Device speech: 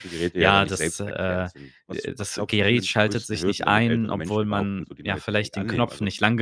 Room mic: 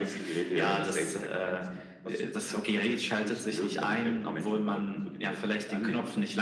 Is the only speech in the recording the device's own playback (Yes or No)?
Yes